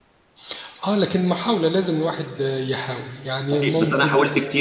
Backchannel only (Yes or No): No